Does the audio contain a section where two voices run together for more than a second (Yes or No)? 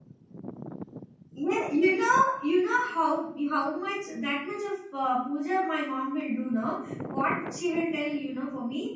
No